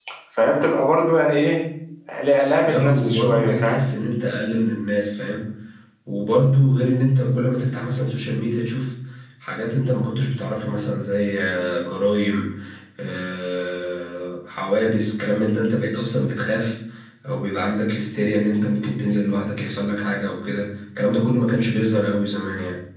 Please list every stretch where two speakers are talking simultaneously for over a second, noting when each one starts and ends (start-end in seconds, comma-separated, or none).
2.6-3.8